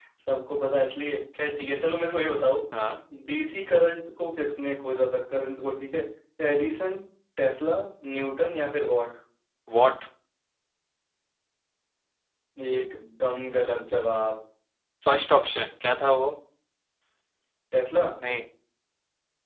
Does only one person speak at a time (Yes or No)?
Yes